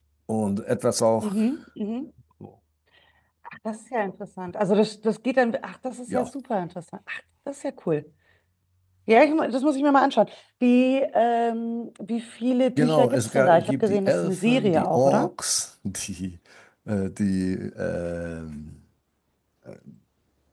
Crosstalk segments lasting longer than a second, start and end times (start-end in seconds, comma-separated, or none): 12.8-15.3